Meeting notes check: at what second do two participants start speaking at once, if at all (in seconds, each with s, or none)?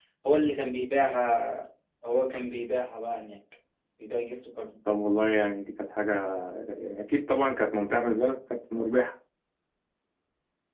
none